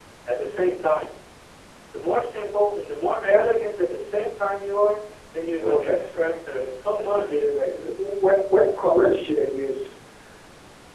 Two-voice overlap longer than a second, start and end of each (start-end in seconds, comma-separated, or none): 5.6-7.4